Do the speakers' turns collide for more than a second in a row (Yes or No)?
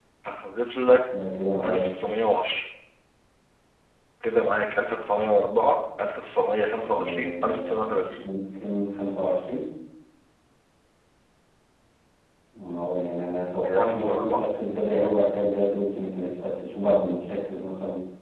Yes